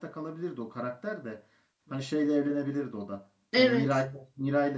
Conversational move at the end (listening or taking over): listening